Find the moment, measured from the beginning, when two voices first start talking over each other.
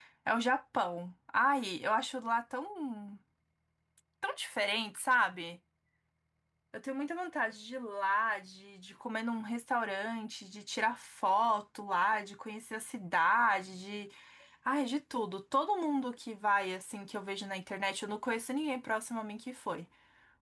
none

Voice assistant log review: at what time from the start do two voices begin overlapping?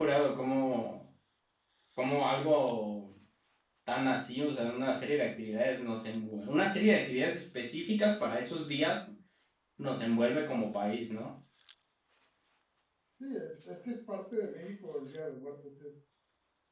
none

